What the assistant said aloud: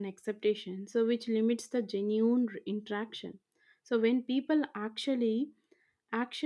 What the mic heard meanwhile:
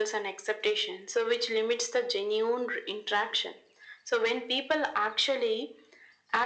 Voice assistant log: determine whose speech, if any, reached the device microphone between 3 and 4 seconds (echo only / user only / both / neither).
echo only